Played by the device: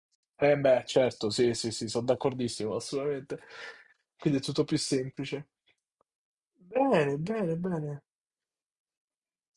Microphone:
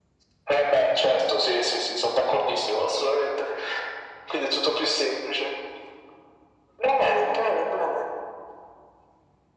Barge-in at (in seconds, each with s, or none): none